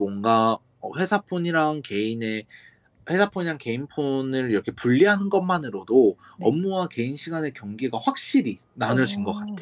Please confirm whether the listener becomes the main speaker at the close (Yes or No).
Yes